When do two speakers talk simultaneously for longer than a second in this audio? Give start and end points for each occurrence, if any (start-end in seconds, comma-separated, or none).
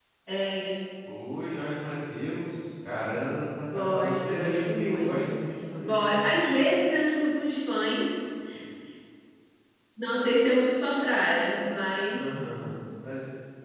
3.7-5.2